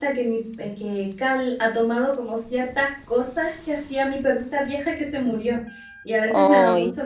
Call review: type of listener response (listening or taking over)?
listening